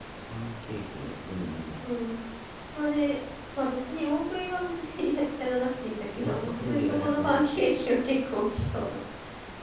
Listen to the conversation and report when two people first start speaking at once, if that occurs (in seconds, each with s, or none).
6.2 s